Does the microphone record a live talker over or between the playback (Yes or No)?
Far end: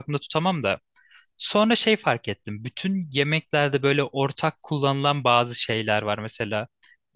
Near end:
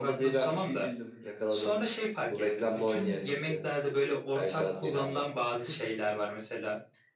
Yes